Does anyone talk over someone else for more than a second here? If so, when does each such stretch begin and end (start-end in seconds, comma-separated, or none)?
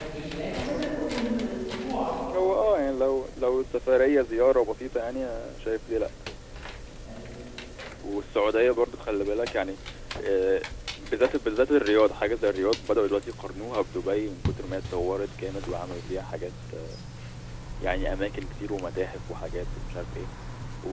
none